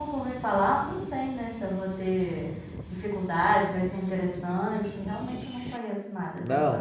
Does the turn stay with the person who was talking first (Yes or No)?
No